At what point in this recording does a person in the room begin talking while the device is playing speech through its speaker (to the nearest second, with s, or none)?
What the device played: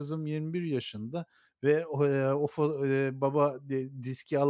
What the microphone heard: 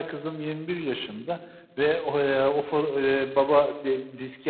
none